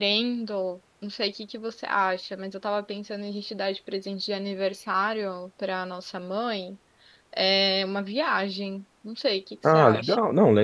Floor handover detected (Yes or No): Yes